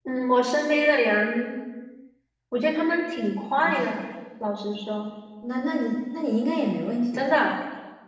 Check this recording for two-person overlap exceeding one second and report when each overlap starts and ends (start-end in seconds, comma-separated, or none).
none